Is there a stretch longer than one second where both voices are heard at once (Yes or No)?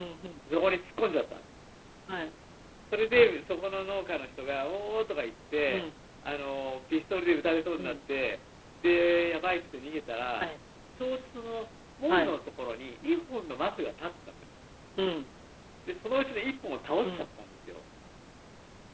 No